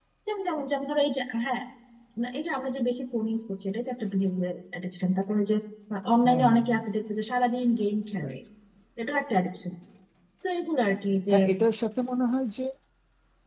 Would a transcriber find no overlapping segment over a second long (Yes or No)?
Yes